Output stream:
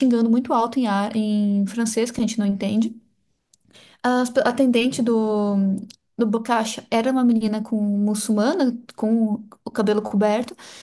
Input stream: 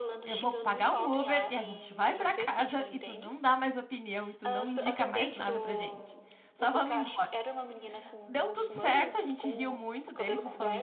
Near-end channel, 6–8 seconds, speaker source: both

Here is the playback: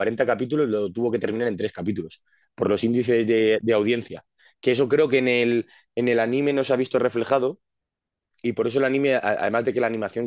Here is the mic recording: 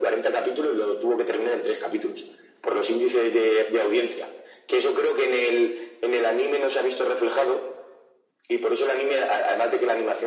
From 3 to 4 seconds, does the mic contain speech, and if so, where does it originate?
echo only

